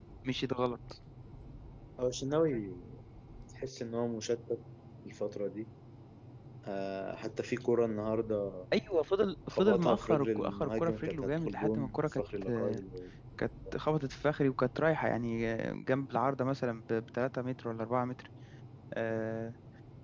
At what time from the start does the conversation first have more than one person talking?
9.5 s

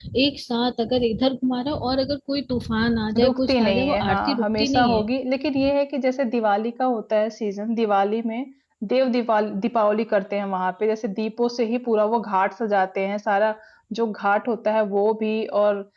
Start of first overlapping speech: 3.2 s

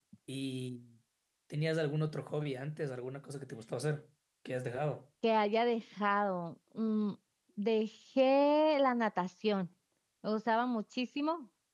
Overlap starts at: none

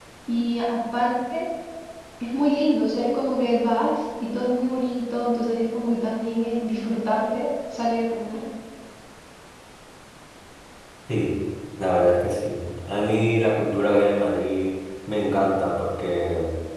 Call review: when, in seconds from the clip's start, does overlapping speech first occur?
none

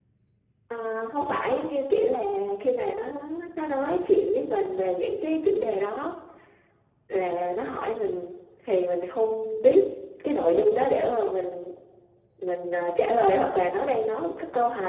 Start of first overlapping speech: none

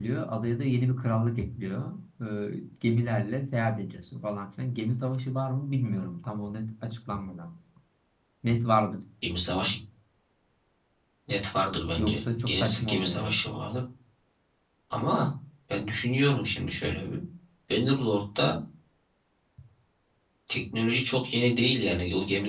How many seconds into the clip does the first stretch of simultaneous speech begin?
12.0 s

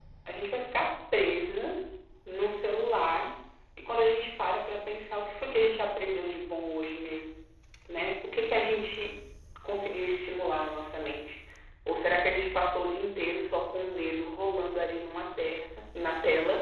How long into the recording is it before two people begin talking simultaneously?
none

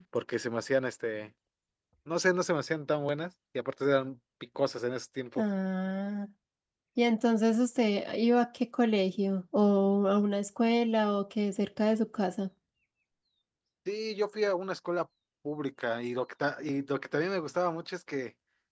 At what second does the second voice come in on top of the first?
none

